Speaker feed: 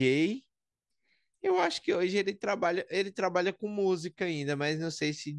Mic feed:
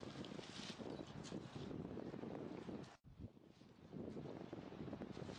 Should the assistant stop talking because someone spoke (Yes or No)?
No